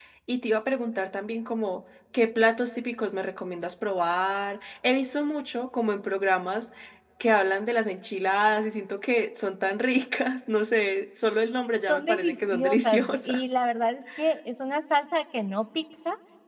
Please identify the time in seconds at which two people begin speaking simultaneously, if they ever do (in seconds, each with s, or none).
11.9 s